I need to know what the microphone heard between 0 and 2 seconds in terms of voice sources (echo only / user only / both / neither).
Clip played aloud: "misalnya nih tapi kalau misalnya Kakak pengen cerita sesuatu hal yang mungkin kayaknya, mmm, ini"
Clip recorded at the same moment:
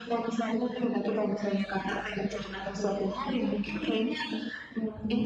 echo only